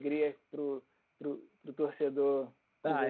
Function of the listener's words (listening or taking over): taking over